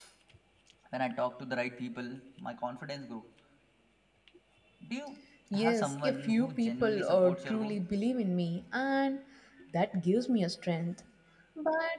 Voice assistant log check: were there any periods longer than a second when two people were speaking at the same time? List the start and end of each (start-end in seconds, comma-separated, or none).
5.5-7.8